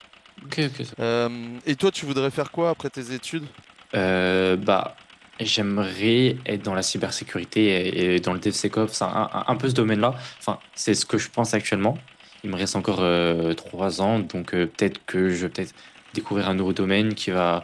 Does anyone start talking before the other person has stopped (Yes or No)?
No